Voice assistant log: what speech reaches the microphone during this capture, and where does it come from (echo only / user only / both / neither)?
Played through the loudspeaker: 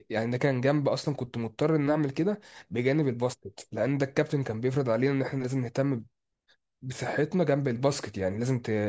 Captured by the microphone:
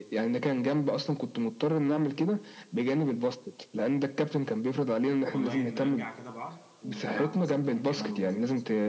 both